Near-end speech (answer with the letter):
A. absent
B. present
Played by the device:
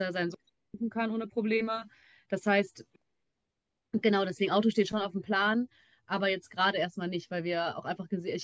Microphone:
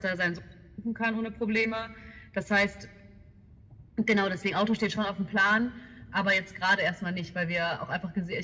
A